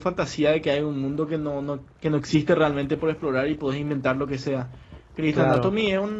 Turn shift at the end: No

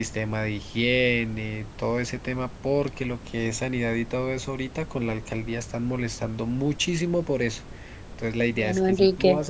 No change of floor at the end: Yes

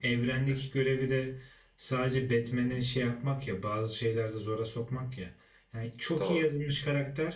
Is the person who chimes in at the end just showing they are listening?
Yes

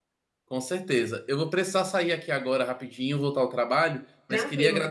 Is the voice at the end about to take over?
No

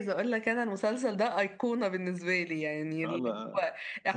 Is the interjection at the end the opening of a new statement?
No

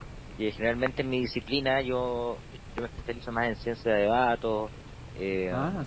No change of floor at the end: Yes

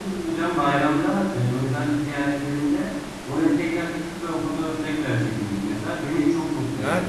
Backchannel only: No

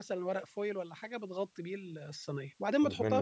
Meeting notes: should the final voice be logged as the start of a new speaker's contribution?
No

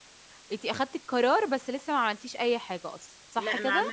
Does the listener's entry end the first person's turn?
Yes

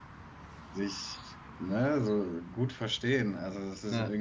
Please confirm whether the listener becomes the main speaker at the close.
No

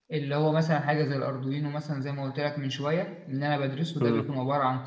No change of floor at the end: Yes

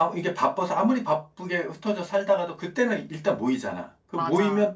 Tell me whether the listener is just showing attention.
Yes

